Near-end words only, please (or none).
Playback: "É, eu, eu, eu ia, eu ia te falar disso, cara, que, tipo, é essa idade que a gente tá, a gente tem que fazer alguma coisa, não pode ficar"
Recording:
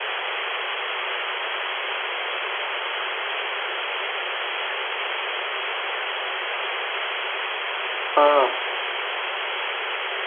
ah,